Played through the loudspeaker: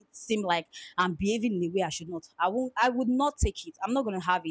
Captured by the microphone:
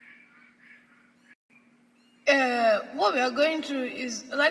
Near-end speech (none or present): present